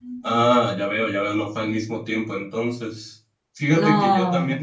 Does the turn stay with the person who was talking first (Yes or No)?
Yes